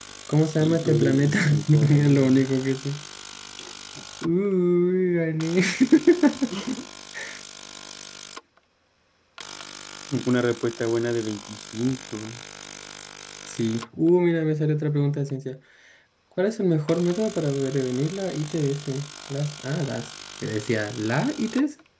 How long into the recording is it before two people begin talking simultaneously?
1 s

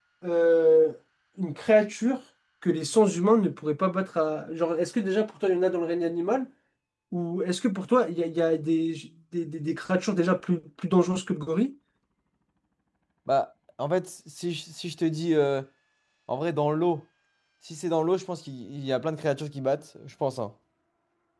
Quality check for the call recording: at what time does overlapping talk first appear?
none

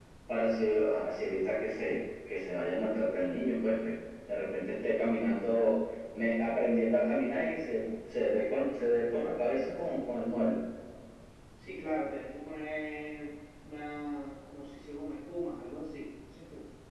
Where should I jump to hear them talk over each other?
none

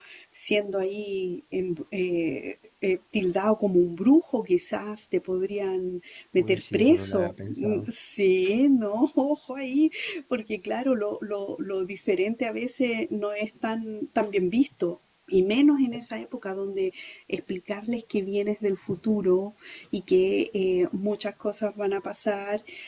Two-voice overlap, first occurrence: 6 s

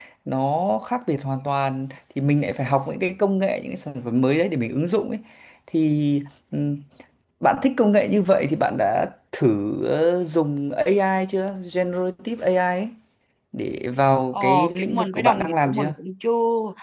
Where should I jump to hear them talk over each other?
14 s

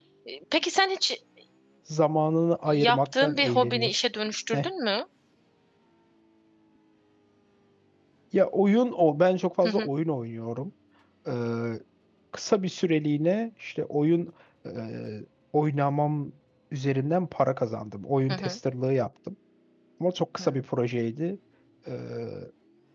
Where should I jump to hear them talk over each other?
3 s

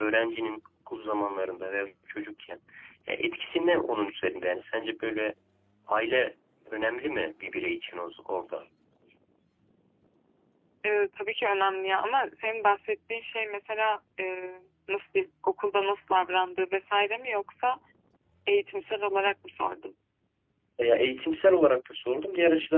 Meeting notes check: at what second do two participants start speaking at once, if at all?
none

